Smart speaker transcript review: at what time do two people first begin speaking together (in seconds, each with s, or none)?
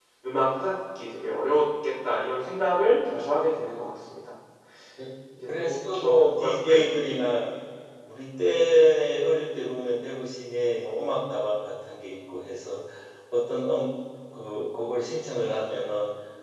5.6 s